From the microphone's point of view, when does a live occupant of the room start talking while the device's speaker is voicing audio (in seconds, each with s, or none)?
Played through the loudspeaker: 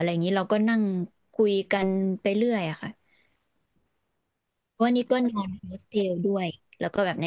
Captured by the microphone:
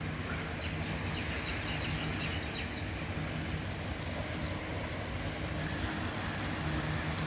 none